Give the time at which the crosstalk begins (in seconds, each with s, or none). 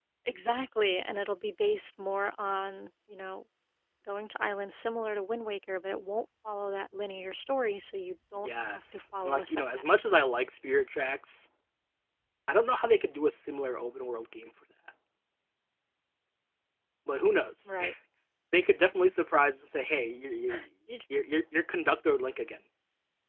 8.4 s